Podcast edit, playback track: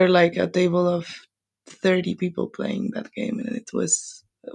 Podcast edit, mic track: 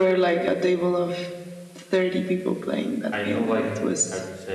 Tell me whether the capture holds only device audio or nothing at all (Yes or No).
No